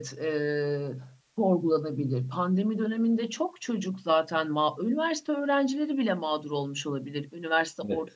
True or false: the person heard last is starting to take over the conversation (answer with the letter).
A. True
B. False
B